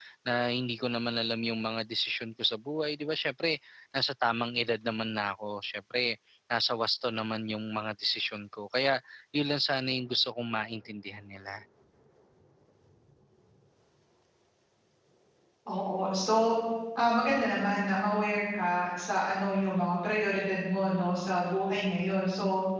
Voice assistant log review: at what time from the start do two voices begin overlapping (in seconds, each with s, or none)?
none